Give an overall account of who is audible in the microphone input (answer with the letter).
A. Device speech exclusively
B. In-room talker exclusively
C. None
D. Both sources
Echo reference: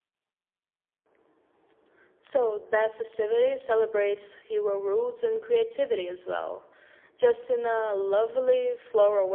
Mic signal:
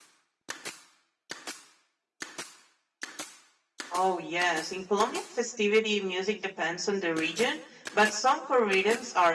B